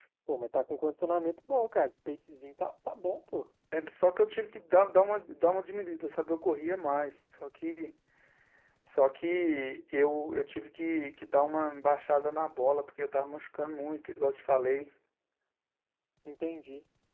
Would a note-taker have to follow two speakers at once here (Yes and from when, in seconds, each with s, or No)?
No